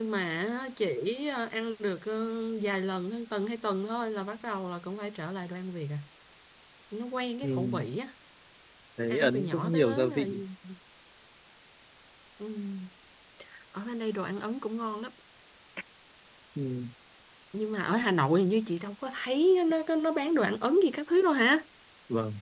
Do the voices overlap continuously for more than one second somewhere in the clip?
Yes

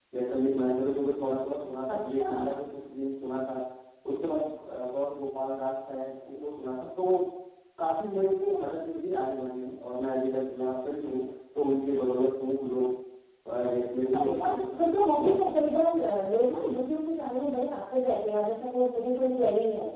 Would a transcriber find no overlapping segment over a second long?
No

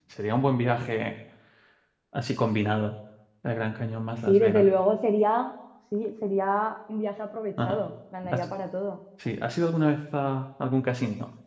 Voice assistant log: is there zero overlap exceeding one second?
Yes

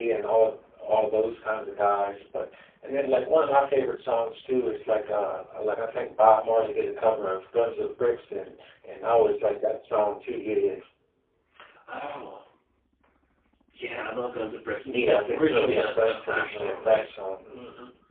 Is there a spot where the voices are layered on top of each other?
Yes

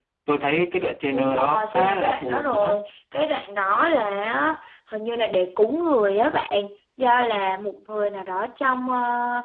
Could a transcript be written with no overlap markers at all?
No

